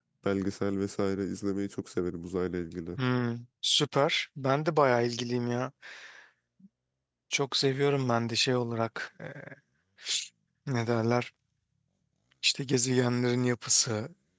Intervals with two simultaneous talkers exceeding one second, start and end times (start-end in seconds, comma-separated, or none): none